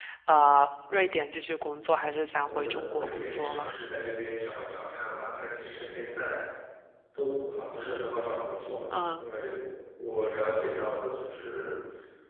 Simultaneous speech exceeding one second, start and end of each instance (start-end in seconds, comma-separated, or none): 2.5-3.8